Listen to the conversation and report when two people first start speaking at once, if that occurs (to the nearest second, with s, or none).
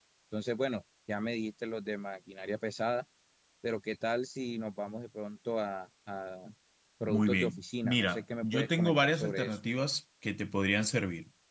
7 s